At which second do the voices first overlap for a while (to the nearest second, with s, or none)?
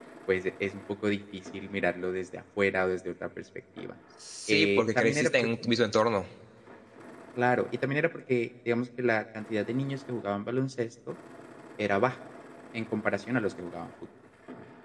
4 s